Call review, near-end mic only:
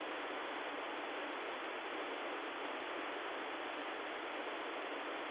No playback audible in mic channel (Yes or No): Yes